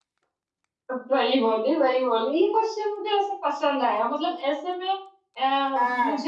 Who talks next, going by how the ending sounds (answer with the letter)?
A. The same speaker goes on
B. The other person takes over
A